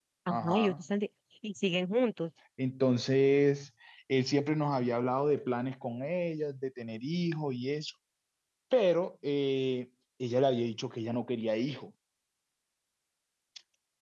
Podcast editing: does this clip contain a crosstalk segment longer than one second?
No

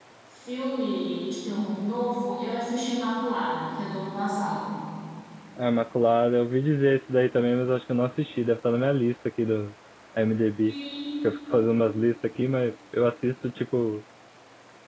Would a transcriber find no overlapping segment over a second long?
Yes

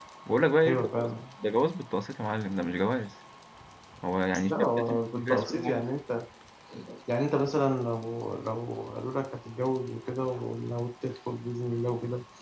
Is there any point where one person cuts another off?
Yes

